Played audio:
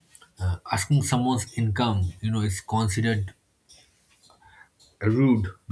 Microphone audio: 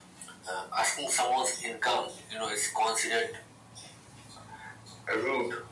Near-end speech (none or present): none